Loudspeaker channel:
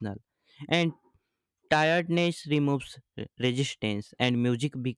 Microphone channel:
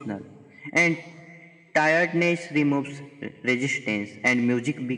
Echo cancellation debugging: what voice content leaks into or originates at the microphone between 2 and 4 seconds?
echo only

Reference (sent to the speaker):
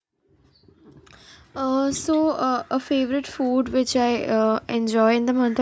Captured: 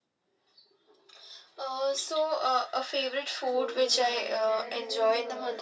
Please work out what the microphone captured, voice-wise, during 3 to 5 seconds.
both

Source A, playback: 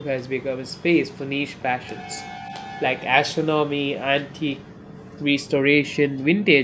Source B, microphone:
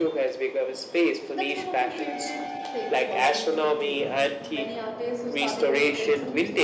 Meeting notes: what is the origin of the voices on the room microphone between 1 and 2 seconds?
both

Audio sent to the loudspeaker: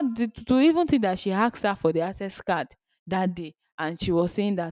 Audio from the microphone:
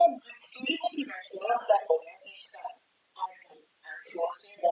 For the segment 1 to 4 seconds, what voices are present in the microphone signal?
echo only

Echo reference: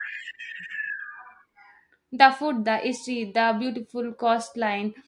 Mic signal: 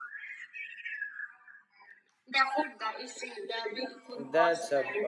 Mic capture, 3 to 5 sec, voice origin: both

